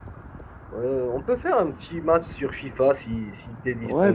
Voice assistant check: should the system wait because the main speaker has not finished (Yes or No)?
No